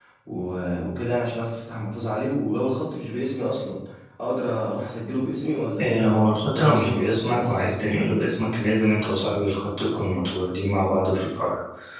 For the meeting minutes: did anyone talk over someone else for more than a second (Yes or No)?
Yes